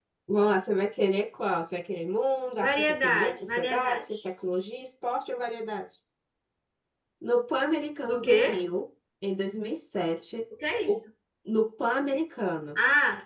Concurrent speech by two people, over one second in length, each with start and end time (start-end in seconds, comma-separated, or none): 2.6-4.2